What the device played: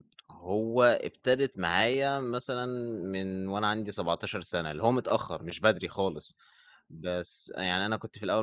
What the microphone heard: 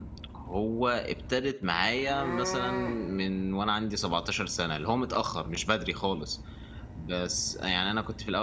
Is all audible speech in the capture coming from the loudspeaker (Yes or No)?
Yes